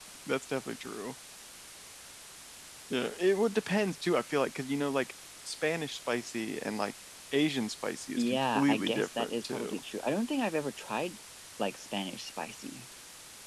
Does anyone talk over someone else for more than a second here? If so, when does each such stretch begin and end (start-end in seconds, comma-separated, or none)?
8.2-9.8